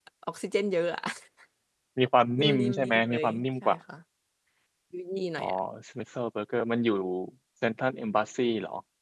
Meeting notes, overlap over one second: present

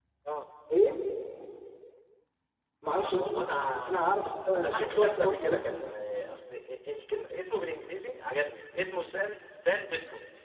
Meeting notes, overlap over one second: present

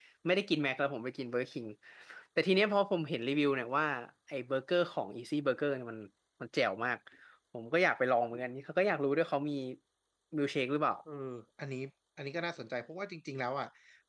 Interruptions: none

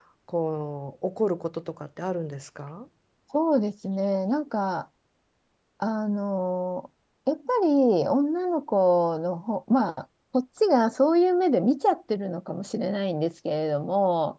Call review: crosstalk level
none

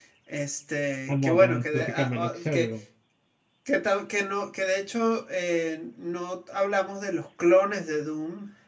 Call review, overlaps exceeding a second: present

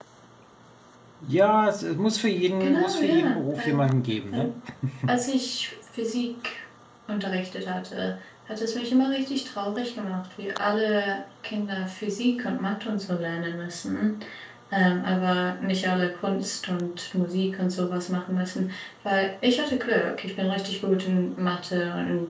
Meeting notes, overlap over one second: present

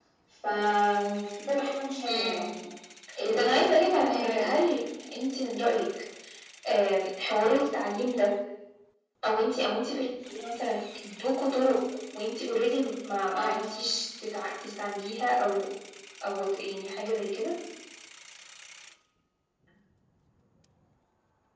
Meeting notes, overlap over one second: present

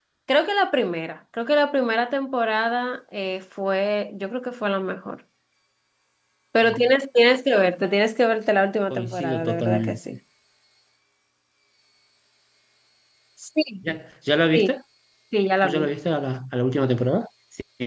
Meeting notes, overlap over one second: present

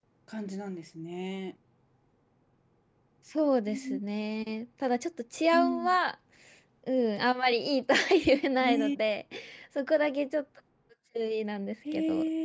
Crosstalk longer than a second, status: none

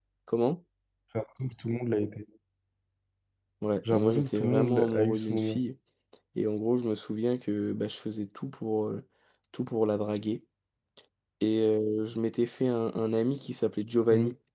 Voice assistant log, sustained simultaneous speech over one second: present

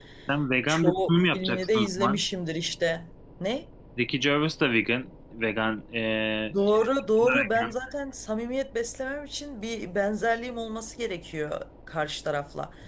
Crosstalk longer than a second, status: present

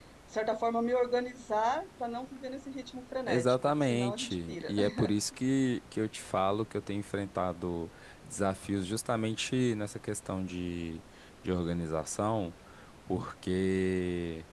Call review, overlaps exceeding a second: present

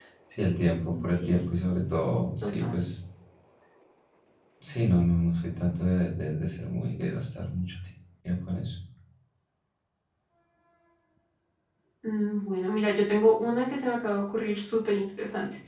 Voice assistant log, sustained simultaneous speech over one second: none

